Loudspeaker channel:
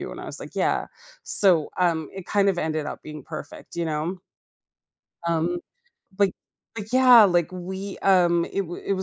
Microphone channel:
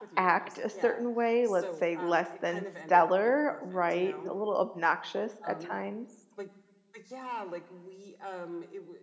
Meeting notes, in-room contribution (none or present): present